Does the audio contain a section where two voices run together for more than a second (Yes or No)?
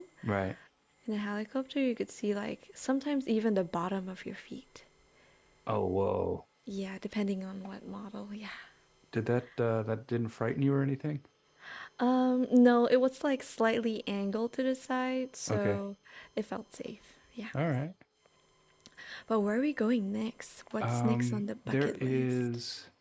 Yes